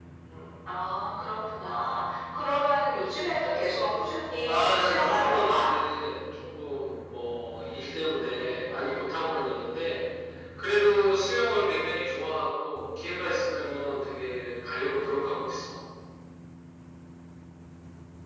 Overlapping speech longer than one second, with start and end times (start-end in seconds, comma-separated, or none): 4.4-5.7